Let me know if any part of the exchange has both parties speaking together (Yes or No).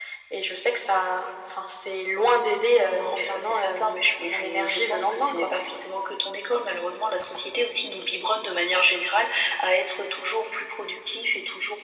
Yes